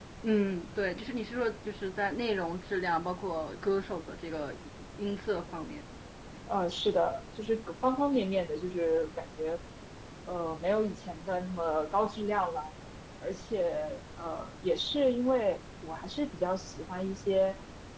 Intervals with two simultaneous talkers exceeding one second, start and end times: none

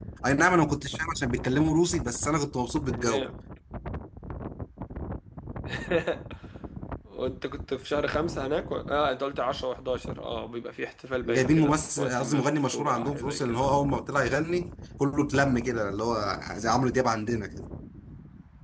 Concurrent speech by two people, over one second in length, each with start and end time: 11.2-13.8

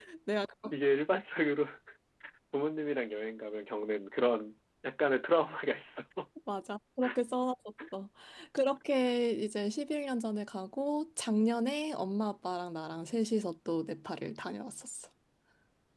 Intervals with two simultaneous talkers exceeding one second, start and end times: none

